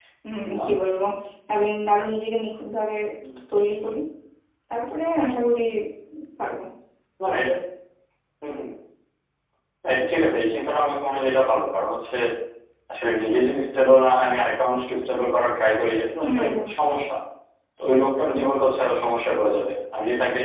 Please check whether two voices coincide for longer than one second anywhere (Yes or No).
No